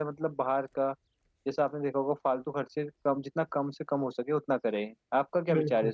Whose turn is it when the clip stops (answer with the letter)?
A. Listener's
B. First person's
A